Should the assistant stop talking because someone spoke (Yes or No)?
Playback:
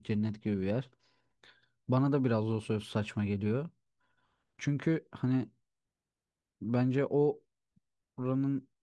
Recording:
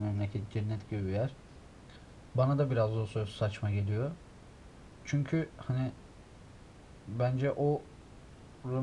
No